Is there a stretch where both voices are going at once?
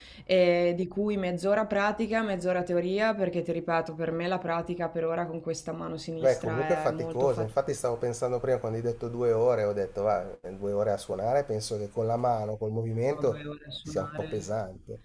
Yes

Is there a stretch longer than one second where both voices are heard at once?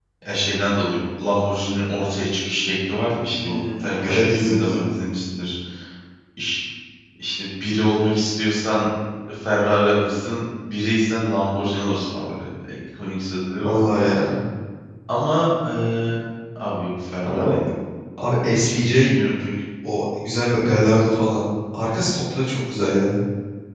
Yes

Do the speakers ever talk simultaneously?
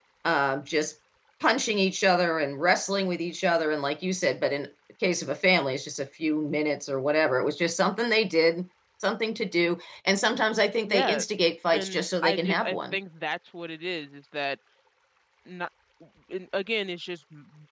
Yes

